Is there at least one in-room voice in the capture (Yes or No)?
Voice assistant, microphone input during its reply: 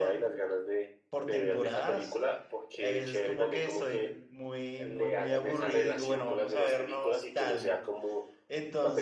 Yes